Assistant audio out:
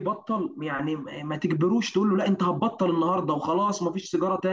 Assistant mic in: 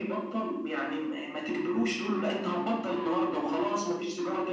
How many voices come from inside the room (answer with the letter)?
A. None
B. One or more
A